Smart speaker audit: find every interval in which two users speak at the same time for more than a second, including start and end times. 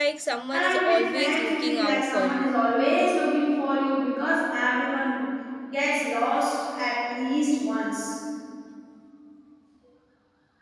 0.5-2.5

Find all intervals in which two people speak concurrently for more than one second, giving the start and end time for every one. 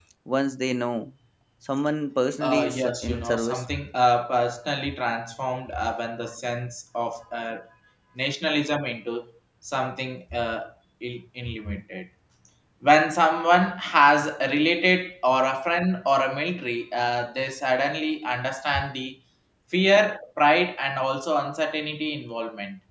2.4-3.6

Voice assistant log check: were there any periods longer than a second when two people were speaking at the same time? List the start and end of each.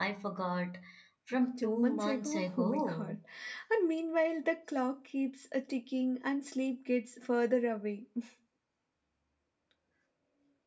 1.6-3.2

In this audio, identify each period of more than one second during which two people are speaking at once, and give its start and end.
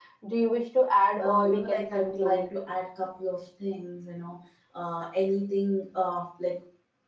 1.2-2.4

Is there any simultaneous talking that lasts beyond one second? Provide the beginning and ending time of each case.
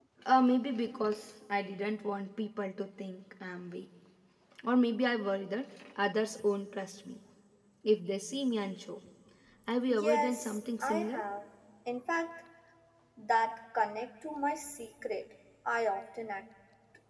9.9-11.2

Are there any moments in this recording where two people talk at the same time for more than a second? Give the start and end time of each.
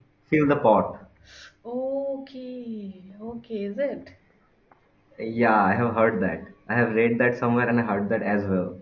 none

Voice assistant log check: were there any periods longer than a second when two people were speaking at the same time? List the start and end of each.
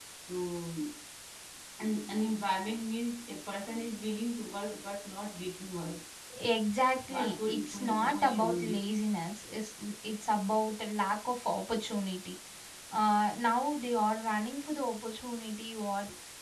7.1-8.9

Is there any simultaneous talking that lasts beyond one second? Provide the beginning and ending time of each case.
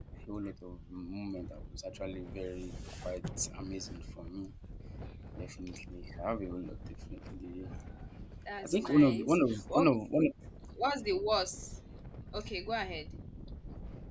8.6-9.9

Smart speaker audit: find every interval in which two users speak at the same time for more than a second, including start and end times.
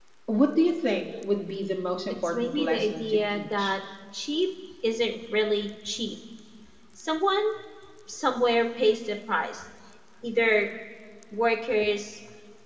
2.1-3.8

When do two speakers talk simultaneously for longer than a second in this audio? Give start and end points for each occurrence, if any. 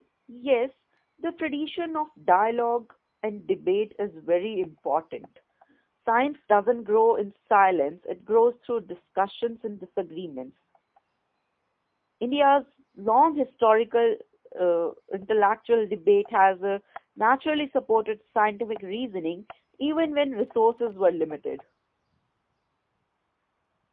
none

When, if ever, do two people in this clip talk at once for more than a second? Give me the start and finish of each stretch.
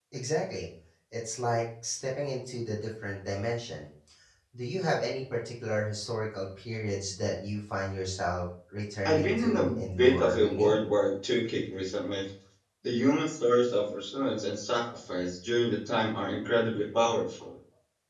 9.1-10.8

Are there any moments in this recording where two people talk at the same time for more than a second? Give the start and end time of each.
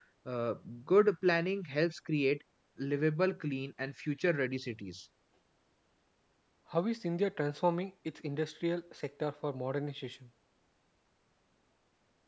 none

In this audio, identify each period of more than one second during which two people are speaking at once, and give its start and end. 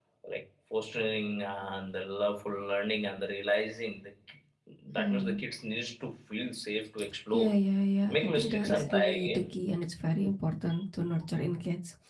8.1-9.4

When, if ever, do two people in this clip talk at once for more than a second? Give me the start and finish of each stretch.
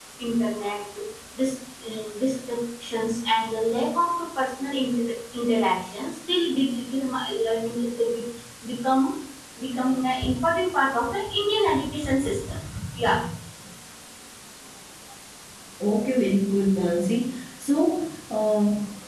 none

